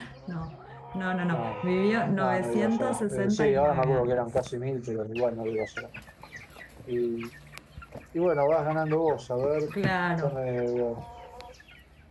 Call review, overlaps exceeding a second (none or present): present